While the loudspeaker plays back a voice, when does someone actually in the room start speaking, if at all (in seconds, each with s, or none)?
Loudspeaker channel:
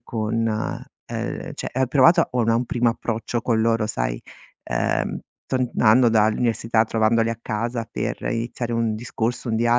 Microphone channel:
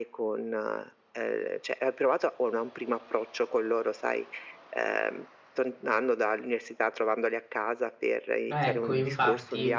8.5 s